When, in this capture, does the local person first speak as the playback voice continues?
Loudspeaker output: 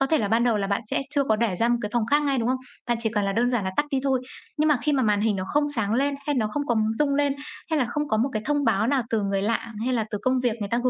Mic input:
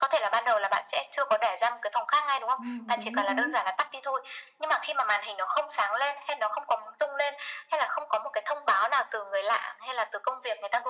2.6 s

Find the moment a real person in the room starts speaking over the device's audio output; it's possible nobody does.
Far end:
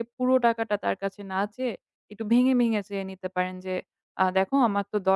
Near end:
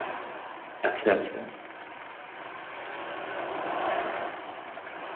0.9 s

